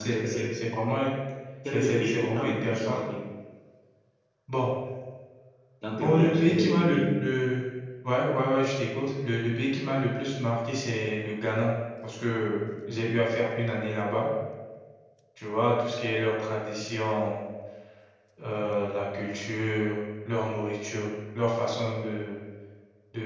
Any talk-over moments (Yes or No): Yes